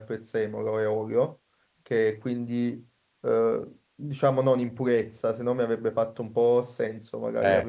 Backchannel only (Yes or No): Yes